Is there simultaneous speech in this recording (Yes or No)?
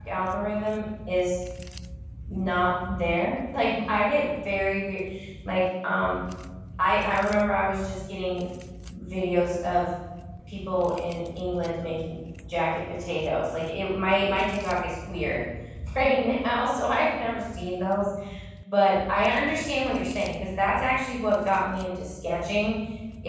No